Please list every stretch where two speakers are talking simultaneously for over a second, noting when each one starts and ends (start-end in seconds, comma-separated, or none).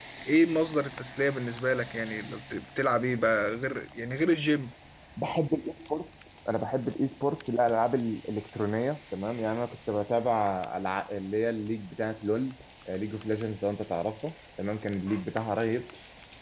none